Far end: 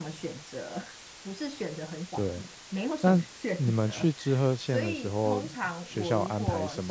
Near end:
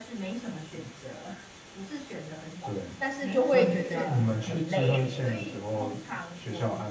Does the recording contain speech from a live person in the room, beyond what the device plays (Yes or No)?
Yes